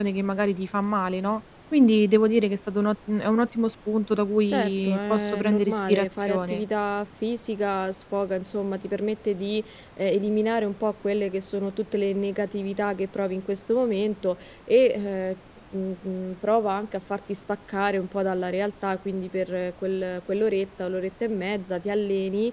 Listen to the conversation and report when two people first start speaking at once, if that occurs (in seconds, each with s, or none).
4.5 s